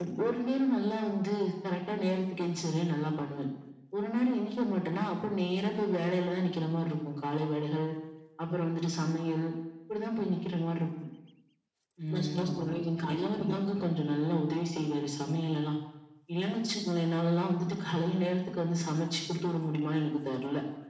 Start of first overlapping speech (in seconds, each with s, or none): 12.1 s